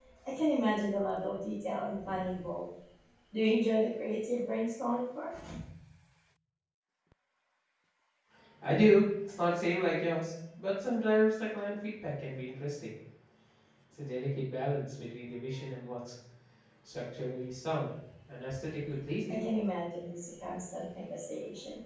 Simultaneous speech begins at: none

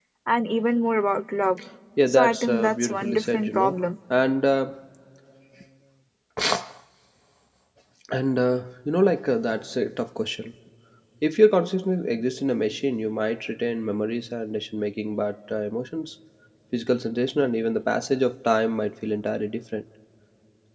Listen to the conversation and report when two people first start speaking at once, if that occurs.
2.1 s

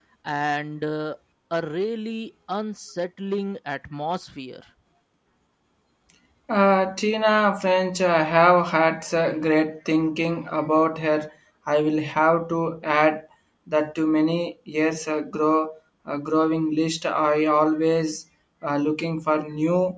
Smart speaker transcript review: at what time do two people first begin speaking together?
none

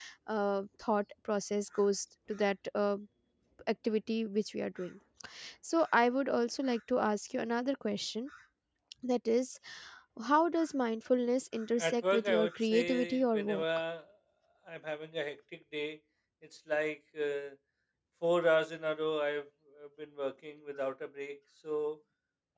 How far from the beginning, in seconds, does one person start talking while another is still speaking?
11.8 s

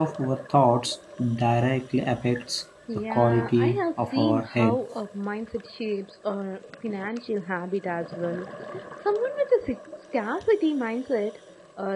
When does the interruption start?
2.9 s

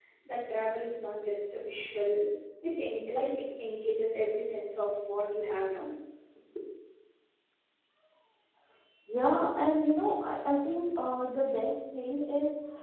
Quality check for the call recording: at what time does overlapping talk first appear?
none

